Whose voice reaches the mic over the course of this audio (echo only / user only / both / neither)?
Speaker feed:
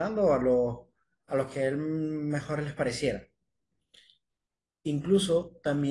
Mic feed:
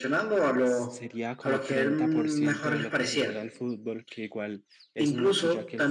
both